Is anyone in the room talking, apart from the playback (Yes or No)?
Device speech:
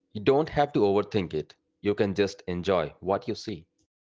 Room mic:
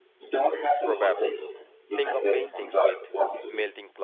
Yes